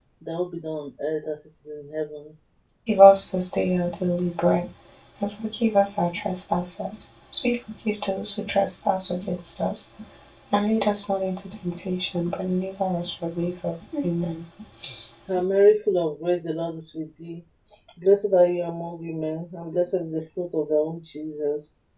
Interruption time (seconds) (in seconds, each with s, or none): none